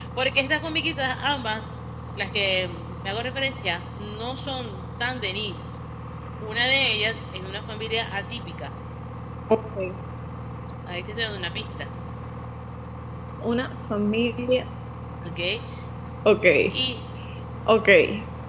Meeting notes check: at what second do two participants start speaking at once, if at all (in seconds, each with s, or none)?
none